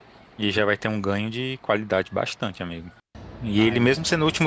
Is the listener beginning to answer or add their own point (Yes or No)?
No